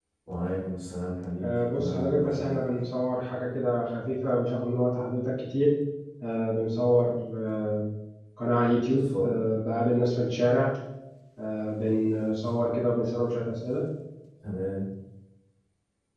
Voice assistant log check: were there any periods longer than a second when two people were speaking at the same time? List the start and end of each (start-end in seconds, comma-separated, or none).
1.4-2.6